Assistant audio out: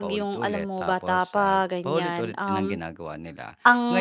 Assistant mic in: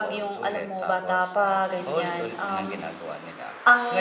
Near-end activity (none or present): none